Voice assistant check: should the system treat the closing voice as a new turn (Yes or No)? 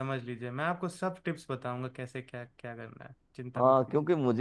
Yes